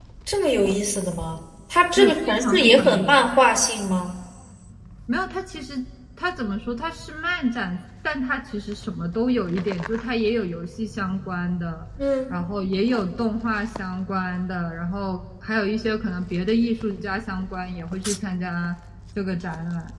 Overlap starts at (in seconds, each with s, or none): 2.0 s